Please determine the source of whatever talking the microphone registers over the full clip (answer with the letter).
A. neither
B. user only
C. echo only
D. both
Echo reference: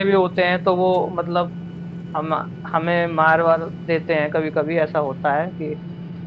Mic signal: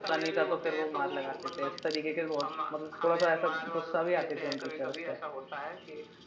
D